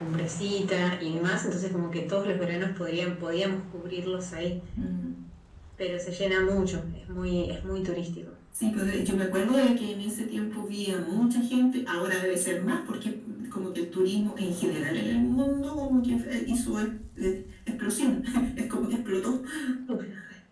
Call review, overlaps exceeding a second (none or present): none